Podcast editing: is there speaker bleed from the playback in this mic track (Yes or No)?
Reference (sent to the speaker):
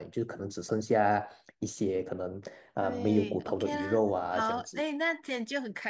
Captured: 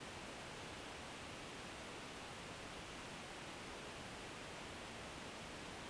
No